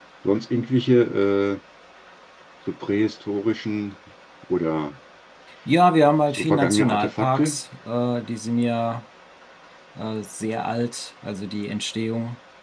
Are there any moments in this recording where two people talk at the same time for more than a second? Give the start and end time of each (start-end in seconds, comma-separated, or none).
6.4-7.6